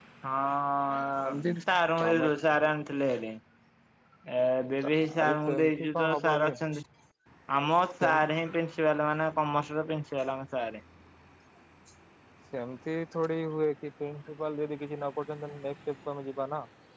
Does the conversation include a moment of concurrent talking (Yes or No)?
Yes